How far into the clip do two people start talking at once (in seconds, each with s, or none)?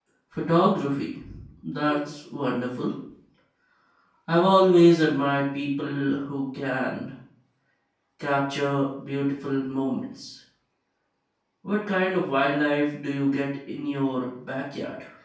none